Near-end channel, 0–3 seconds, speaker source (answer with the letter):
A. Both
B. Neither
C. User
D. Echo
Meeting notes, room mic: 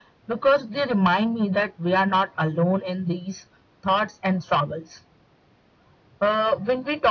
D